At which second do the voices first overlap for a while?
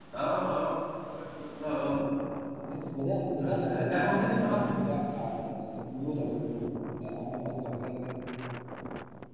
3 s

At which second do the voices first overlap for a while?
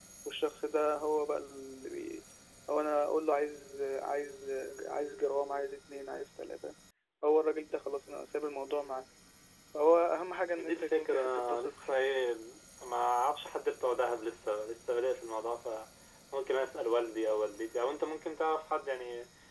11 s

